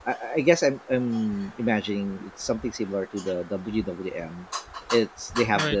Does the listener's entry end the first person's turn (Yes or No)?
No